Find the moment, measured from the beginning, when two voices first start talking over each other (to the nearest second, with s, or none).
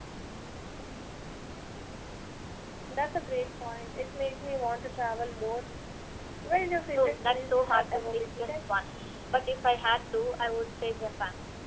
7 s